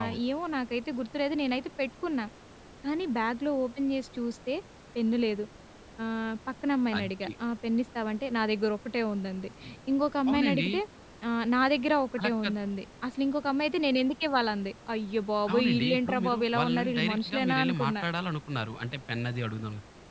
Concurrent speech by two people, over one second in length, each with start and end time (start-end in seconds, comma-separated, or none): 15.5-17.9